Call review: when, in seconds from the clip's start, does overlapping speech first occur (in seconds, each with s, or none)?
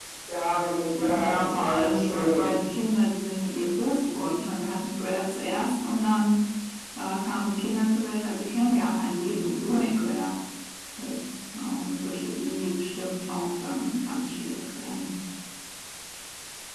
1.1 s